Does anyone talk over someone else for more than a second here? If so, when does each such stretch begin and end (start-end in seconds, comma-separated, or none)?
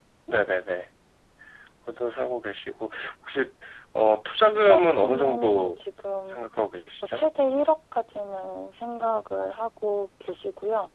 4.5-5.8